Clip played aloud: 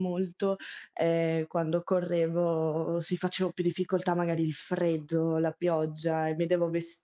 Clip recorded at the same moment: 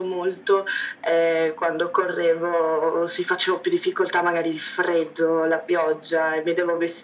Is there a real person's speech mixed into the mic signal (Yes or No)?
No